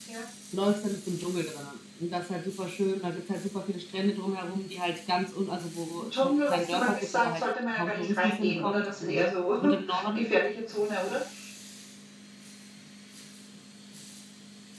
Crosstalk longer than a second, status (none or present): present